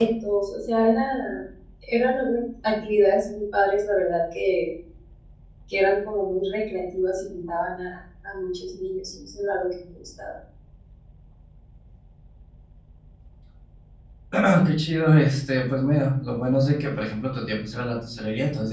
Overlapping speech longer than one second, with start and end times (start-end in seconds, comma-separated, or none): none